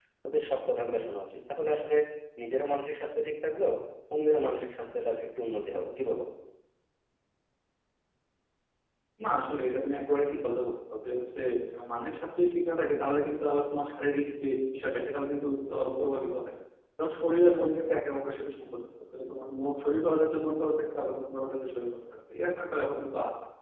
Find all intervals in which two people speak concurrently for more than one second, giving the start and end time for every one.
none

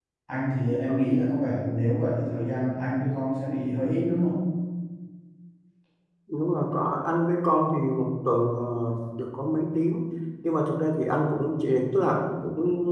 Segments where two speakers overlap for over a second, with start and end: none

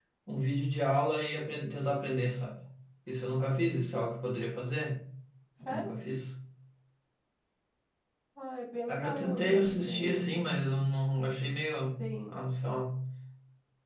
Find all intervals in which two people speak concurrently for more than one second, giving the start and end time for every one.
8.9-10.4

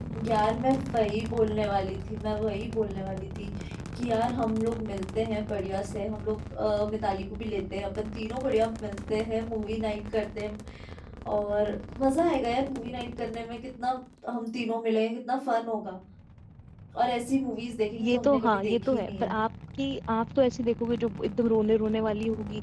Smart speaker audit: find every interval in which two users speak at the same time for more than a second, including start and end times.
18.0-19.4

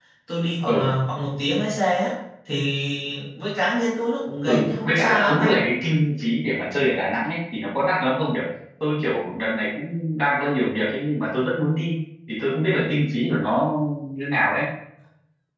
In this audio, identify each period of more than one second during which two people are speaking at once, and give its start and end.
4.5-5.7

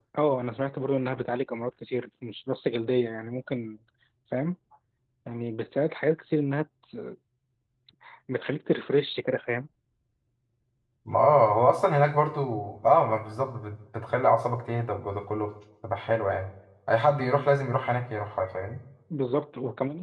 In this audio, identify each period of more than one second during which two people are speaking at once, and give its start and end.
none

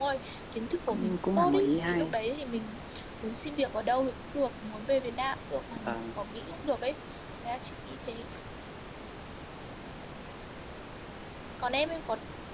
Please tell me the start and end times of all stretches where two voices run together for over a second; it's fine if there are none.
0.9-2.1

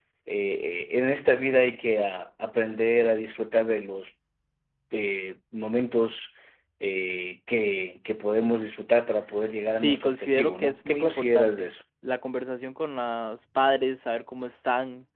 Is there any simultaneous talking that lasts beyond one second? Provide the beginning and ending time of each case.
9.7-11.7

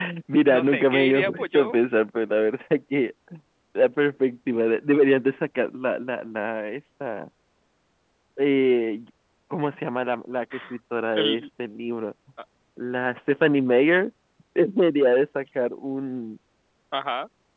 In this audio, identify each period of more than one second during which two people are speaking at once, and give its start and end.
0.5-1.8

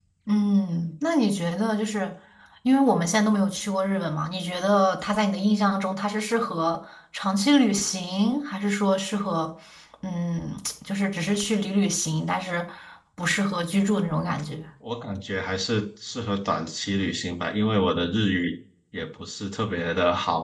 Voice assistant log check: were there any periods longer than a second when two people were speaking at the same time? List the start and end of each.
none

